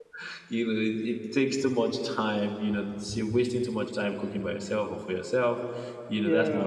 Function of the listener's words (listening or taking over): listening